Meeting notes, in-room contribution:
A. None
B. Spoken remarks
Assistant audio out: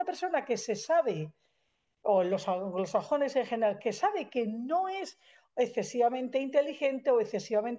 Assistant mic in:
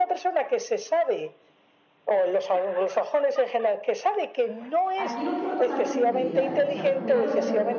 B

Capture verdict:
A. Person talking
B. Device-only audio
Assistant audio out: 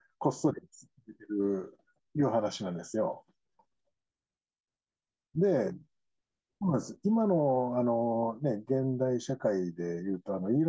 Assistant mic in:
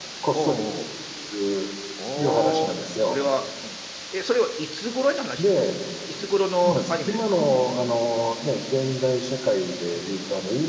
A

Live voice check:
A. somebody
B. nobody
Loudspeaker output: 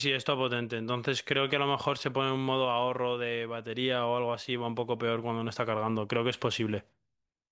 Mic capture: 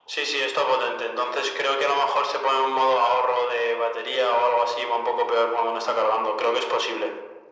B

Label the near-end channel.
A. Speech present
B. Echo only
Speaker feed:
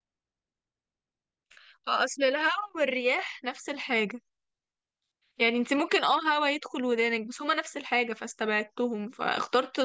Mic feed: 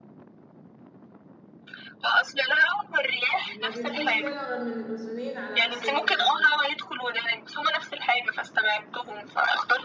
A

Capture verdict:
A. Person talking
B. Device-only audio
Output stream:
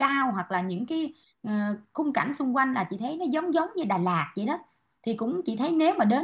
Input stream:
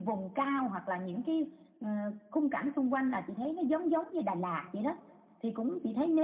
B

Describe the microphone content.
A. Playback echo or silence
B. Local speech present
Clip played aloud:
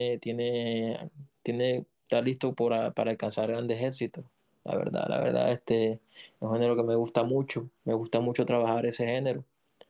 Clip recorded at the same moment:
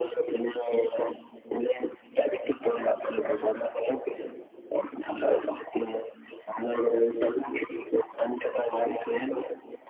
A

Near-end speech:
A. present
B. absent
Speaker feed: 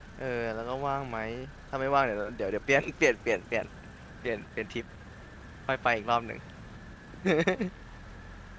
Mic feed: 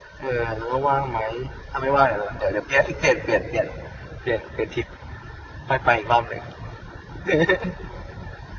B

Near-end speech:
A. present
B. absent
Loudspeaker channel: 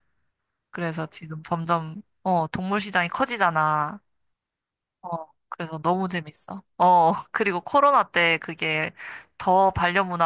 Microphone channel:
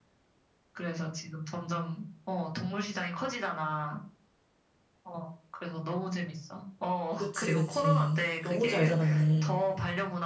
A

